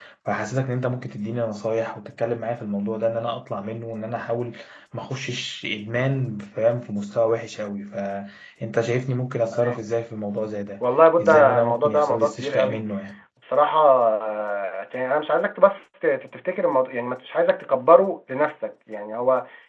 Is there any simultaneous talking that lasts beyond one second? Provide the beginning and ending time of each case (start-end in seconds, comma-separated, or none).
11.2-12.8